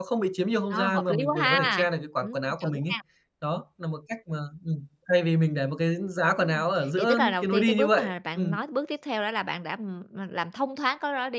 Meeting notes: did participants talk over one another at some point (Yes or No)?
Yes